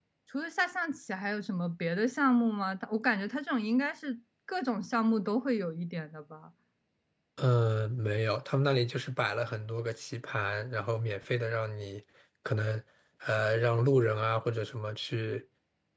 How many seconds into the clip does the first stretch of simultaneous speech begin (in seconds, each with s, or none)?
none